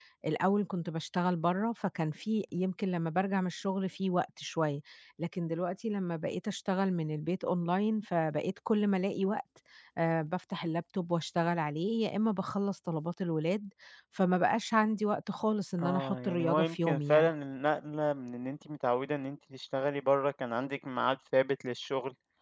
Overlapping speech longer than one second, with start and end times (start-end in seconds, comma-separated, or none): 15.8-17.3